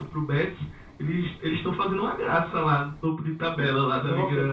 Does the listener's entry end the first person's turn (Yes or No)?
Yes